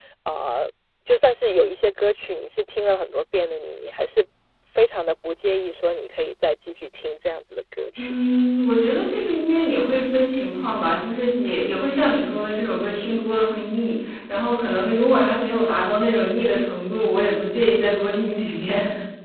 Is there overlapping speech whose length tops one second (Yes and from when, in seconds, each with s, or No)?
No